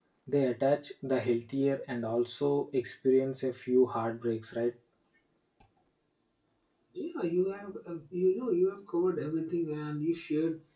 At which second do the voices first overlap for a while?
none

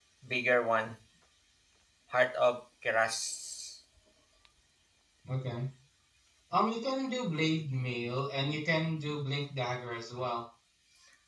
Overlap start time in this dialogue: none

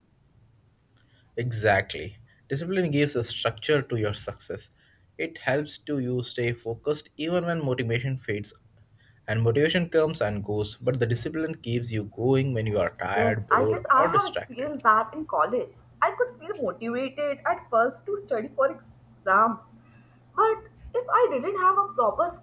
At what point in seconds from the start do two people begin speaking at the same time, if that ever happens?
13.2 s

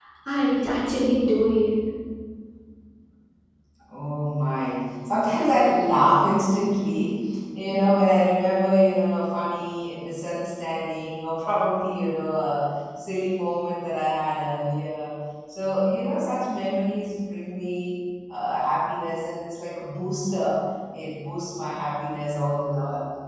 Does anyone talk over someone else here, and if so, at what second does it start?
none

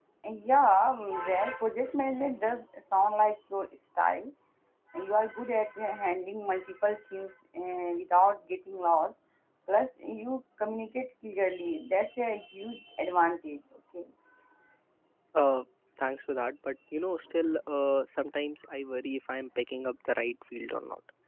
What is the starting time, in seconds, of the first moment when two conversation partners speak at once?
none

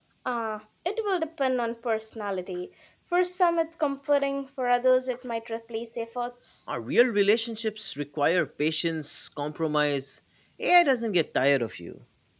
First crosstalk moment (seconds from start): none

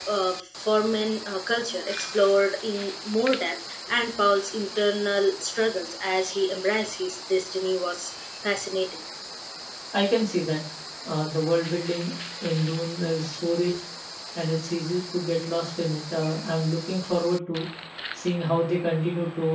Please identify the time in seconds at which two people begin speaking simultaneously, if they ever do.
none

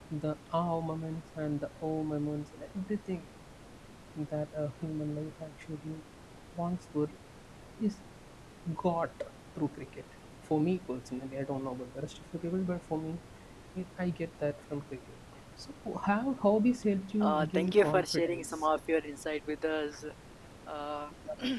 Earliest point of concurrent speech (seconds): 17.2 s

